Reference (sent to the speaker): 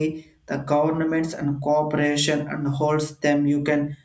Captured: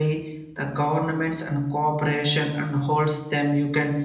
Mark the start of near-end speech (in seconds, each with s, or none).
none